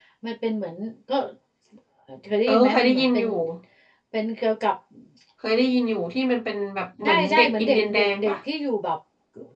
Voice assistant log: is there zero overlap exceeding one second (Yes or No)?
No